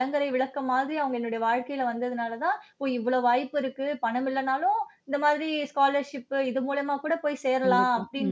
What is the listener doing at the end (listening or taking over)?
listening